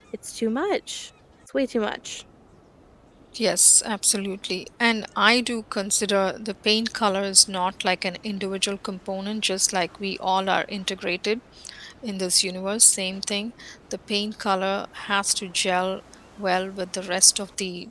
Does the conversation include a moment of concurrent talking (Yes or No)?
No